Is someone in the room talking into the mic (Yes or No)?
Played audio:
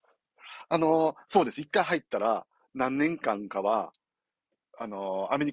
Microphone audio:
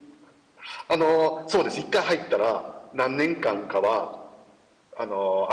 No